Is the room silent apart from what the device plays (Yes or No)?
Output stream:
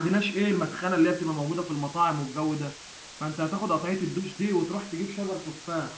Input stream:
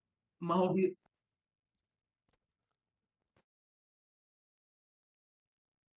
No